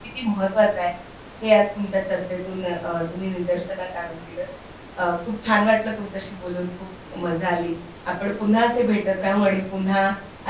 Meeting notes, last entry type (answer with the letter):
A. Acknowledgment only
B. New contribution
A